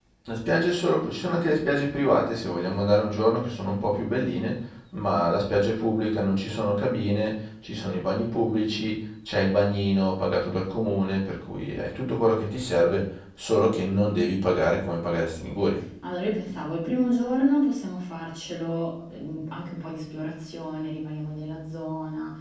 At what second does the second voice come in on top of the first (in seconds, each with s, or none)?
none